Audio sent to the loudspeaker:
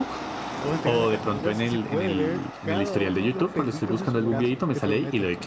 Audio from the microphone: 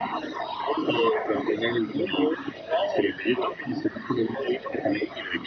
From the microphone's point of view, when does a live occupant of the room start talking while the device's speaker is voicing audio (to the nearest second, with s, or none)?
none